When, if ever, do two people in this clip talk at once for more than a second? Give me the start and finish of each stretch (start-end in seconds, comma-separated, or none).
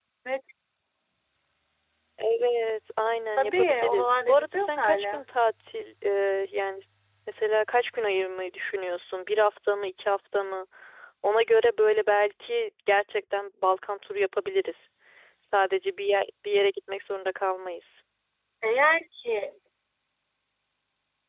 3.4-5.2